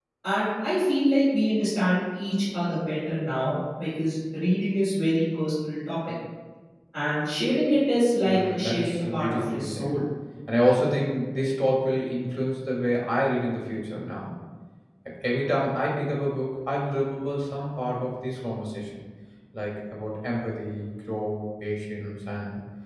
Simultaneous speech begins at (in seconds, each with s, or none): 8.2 s